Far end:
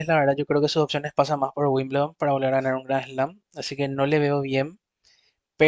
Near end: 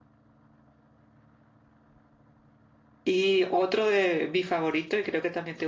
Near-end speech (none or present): present